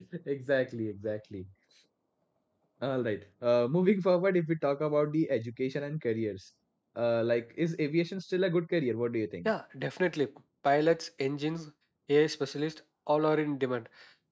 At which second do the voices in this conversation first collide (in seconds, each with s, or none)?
none